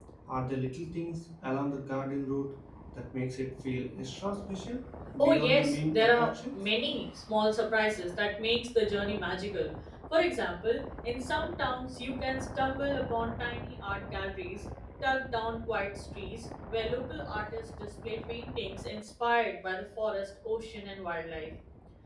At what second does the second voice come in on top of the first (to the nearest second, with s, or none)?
5 s